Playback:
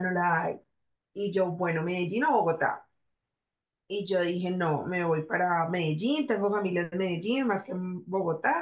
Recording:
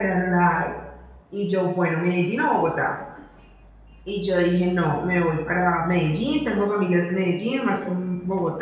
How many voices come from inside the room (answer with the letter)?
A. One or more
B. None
B